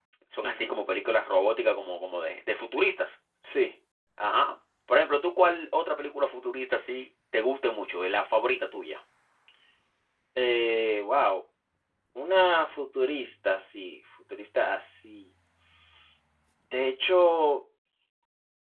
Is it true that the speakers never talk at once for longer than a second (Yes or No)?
Yes